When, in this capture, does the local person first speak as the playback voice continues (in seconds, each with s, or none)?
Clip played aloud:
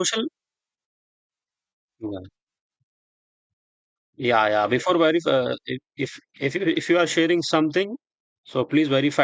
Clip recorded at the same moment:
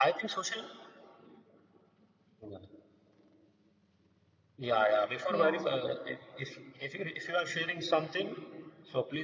5.3 s